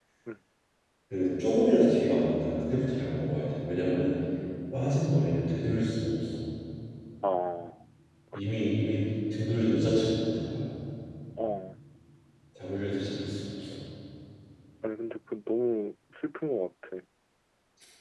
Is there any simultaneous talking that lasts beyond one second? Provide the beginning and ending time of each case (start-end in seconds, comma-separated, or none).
none